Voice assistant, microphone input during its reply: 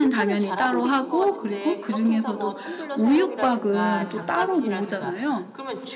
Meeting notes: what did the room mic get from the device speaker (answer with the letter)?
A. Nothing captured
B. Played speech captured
B